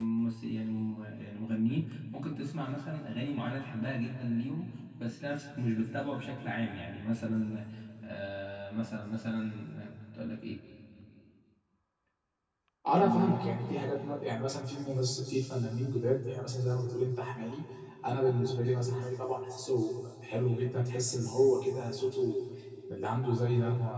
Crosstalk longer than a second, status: none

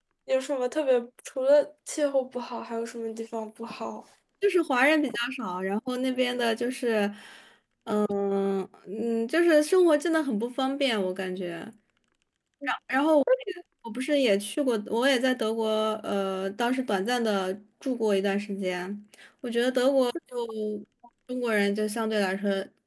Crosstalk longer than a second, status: none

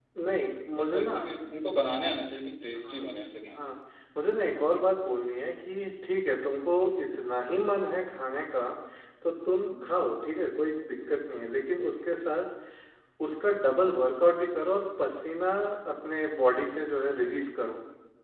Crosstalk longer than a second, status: none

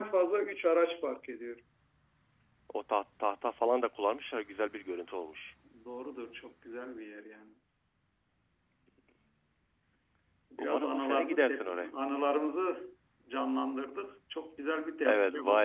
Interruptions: present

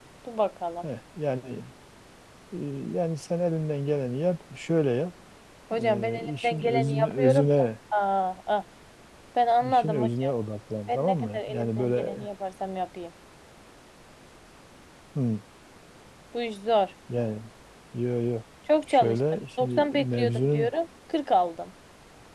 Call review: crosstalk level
present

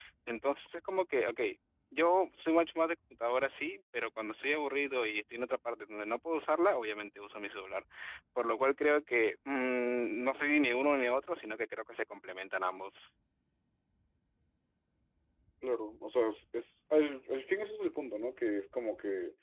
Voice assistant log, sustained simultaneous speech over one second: none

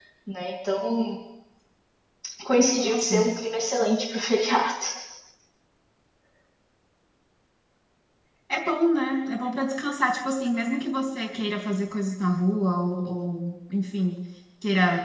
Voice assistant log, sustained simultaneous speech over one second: none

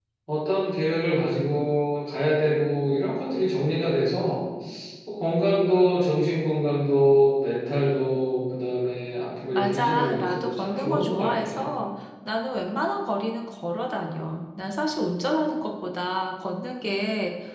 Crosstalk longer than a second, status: present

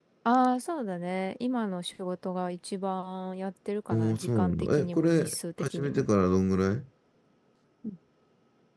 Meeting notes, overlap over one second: present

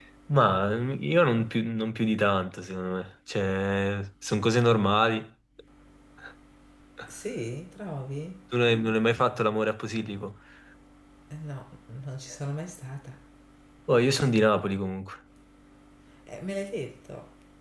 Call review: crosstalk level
none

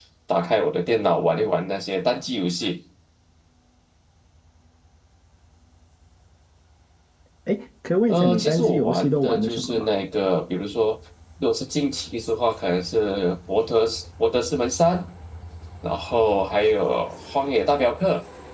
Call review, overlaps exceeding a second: present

